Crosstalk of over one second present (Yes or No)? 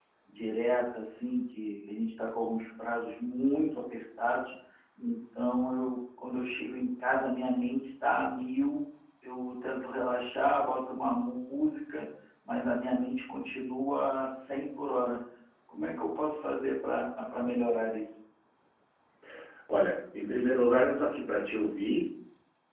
No